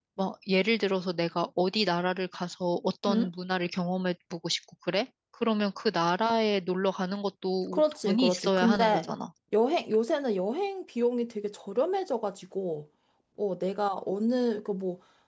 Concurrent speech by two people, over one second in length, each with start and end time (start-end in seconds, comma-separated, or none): 7.7-9.1